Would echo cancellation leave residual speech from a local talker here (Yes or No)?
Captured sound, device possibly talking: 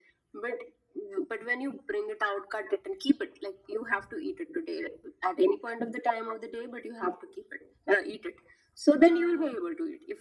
Yes